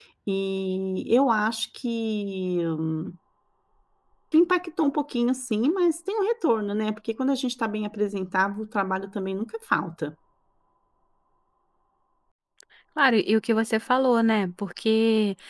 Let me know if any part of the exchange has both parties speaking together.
No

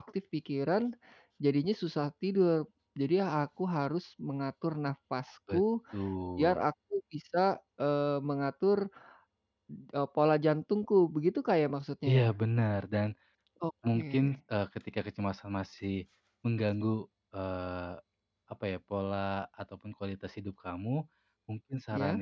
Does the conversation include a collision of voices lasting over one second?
No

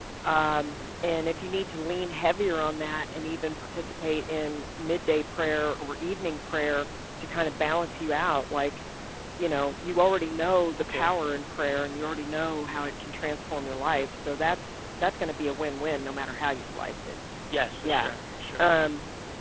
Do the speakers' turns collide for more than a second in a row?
No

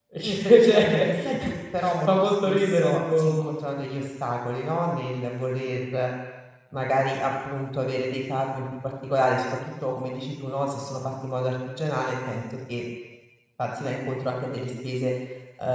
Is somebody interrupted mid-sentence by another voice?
Yes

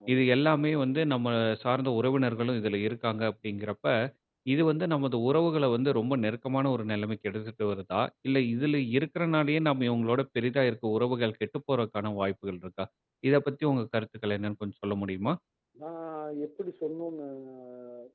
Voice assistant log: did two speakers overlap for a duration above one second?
No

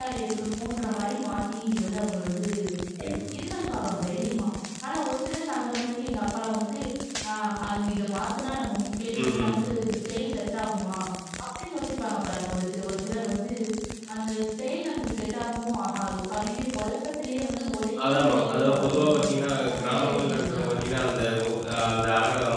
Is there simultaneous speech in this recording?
Yes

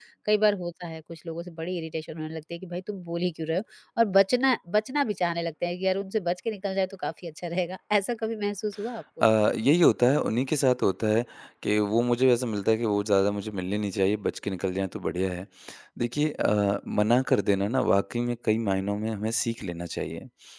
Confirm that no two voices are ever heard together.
Yes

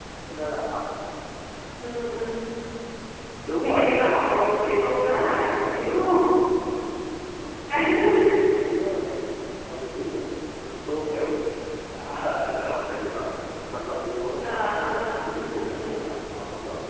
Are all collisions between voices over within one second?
No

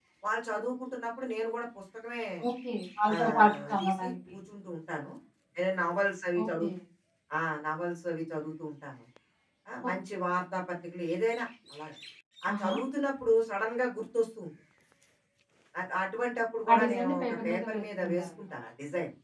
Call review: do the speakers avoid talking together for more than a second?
No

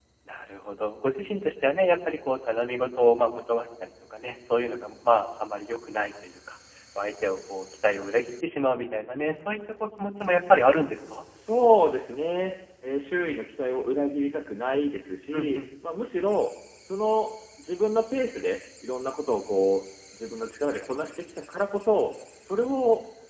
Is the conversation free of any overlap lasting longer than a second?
Yes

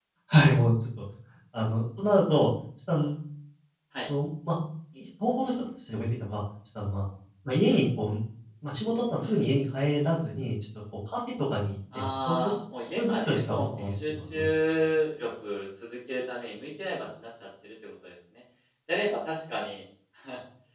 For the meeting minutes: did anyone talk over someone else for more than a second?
Yes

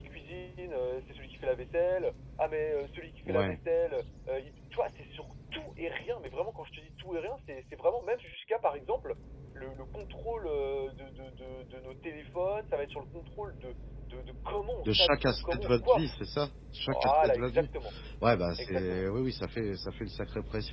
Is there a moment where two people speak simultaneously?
Yes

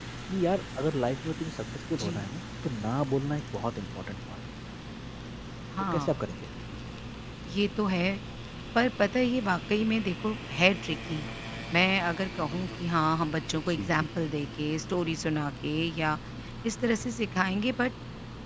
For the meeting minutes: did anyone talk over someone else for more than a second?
No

